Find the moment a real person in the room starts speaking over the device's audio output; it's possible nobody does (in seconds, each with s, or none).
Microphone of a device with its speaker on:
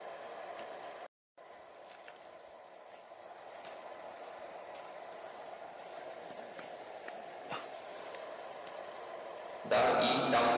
9.6 s